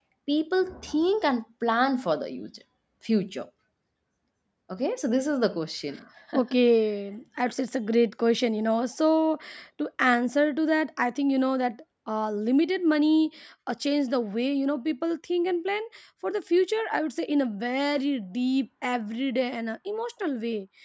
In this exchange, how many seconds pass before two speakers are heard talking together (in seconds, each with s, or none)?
none